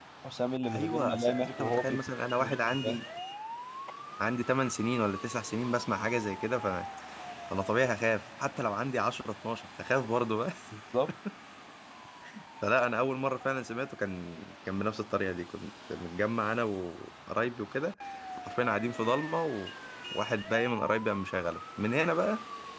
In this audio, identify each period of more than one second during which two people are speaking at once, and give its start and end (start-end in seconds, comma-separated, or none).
0.8-2.0